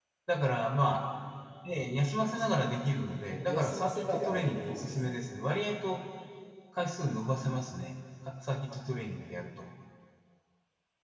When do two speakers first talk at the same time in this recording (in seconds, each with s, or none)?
3.5 s